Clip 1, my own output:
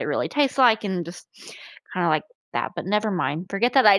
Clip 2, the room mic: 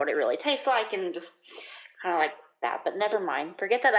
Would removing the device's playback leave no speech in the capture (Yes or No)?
Yes